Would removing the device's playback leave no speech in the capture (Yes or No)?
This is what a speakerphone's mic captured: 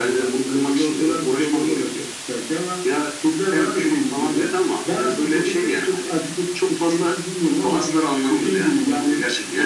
Yes